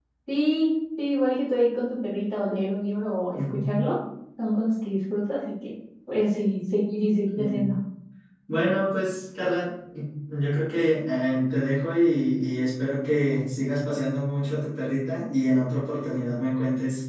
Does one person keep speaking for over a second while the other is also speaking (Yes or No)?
No